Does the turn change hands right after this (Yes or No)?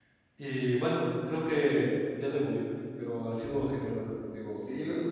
Yes